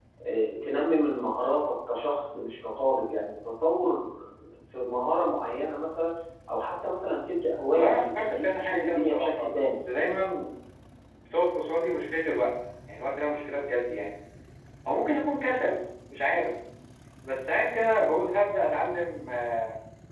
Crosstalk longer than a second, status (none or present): present